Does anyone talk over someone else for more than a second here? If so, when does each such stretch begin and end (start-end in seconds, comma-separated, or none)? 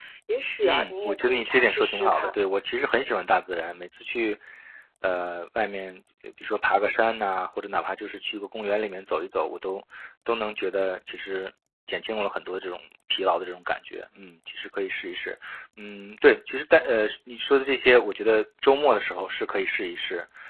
0.6-2.3